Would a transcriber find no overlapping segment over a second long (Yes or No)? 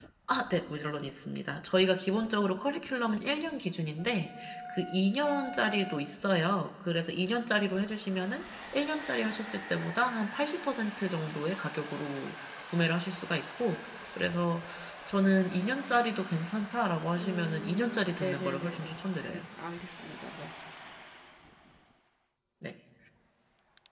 No